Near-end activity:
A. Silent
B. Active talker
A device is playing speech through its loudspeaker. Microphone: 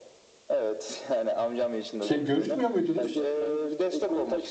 B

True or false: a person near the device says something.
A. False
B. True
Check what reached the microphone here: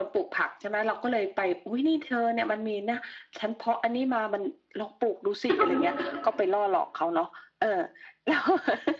B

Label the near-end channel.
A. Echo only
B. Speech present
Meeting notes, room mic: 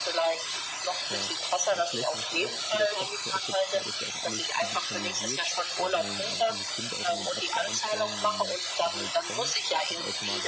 B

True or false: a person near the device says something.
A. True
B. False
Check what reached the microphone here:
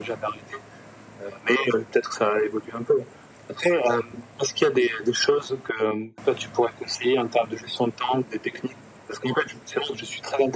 B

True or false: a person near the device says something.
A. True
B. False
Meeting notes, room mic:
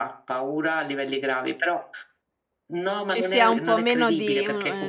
A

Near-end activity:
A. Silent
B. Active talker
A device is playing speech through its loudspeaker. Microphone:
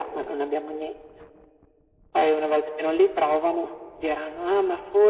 A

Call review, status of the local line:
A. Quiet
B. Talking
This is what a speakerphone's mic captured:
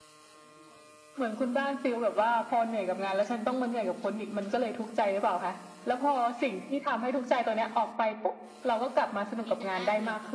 B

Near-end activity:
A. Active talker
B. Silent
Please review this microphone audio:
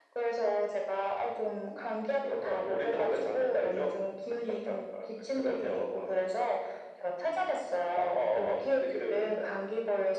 B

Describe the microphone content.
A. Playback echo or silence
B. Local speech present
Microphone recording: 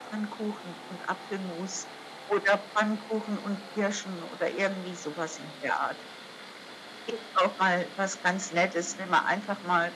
A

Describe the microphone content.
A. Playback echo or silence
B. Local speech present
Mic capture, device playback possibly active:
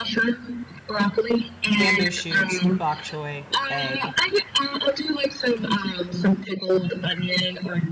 B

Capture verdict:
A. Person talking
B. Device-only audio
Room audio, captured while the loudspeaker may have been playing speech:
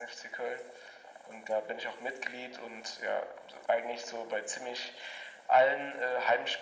B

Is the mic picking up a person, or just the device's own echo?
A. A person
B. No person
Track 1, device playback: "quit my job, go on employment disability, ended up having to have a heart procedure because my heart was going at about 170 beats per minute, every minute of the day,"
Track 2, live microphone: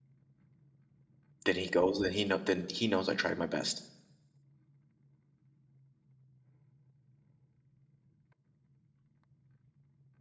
A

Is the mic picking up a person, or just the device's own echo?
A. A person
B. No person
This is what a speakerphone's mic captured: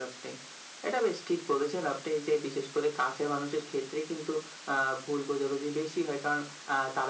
B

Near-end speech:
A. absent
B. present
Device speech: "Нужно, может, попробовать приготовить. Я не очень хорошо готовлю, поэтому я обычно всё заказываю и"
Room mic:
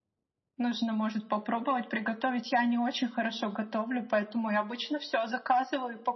A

